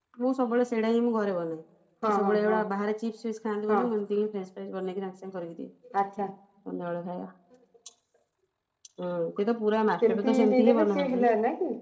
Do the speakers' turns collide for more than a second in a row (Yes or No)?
Yes